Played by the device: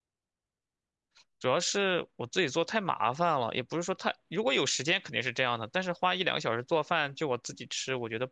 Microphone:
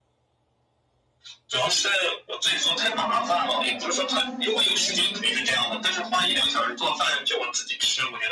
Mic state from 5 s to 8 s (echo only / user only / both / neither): both